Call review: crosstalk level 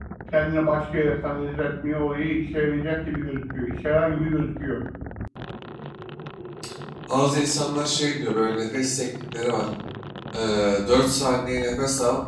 none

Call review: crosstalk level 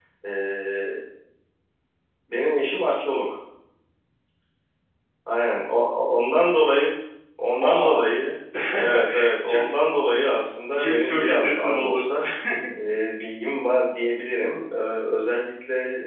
present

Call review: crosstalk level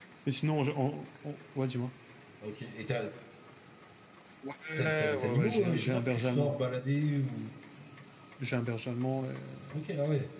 present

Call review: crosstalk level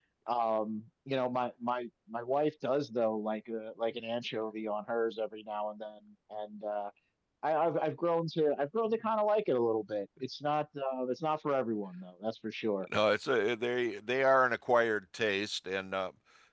none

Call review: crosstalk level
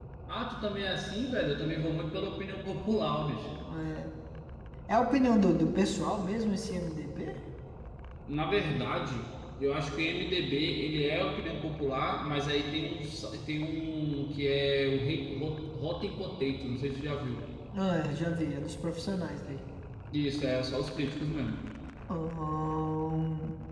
none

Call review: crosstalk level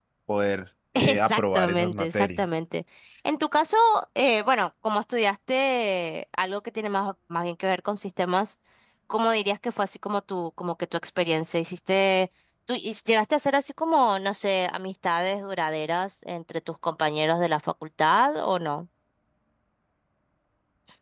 present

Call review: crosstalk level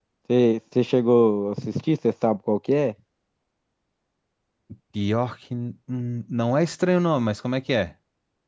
none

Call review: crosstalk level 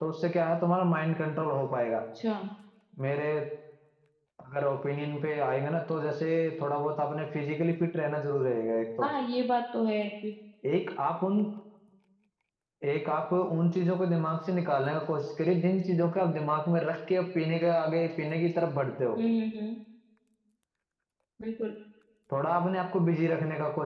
none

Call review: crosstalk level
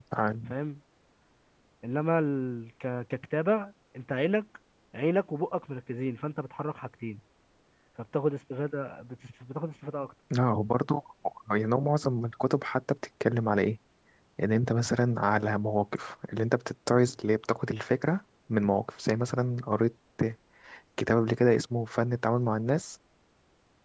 none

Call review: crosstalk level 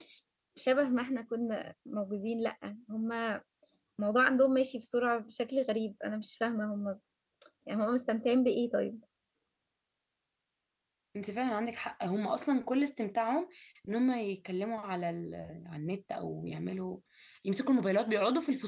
none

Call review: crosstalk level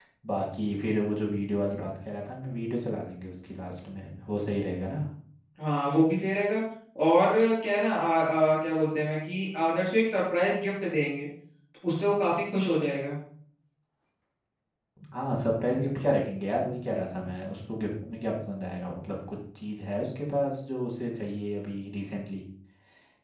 none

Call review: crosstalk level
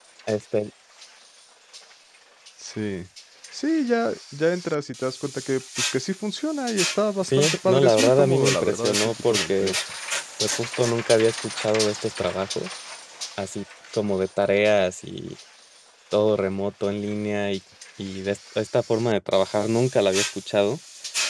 present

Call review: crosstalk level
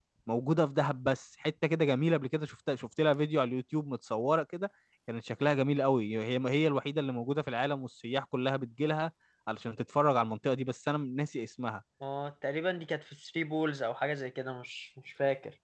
none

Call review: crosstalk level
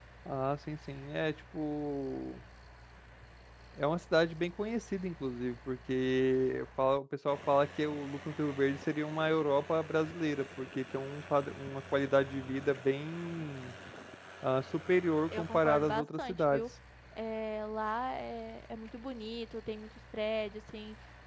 present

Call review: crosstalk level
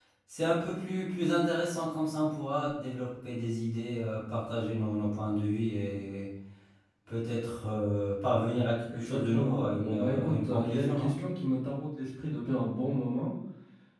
present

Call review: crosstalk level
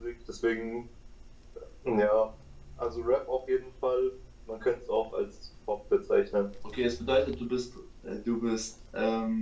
none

